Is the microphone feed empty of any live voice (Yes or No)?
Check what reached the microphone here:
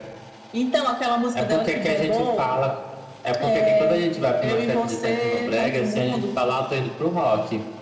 Yes